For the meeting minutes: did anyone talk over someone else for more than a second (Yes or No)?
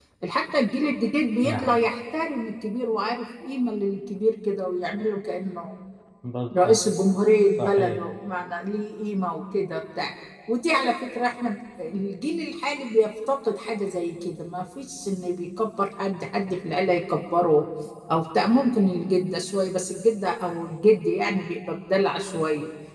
No